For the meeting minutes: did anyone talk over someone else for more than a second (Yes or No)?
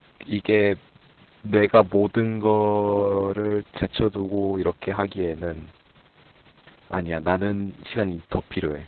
No